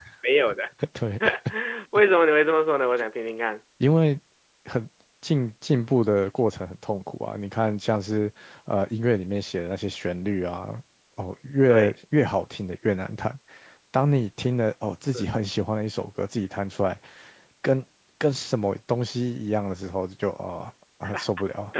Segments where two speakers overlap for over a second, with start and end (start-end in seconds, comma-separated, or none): none